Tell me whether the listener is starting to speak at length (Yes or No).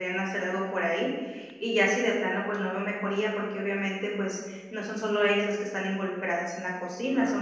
No